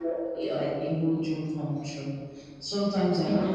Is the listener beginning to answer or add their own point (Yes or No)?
No